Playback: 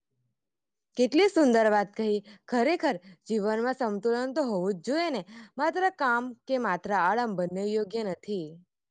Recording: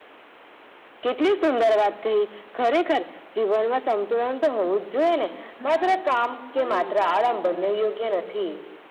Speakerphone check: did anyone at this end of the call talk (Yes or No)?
Yes